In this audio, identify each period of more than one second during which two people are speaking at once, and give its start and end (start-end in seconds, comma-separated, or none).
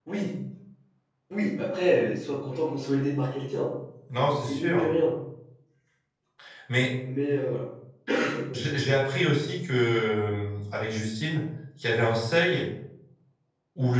none